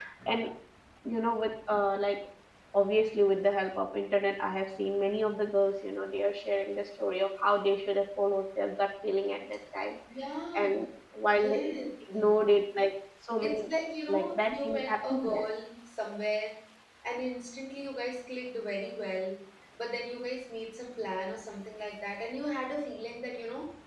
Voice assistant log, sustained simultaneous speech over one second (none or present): present